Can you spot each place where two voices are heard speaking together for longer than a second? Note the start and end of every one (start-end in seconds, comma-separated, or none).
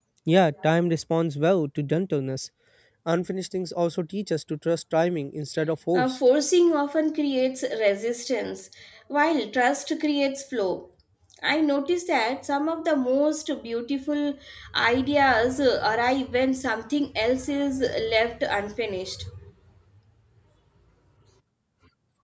none